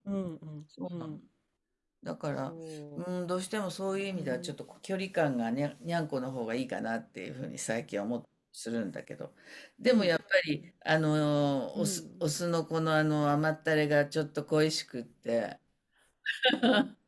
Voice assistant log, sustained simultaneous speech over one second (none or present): none